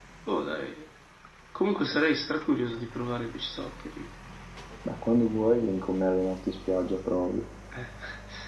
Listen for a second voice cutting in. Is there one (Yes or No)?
No